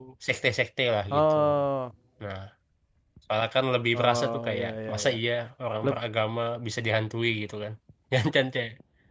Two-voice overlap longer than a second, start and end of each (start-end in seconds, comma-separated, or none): 3.9-5.2